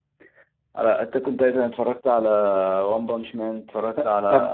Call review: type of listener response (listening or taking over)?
taking over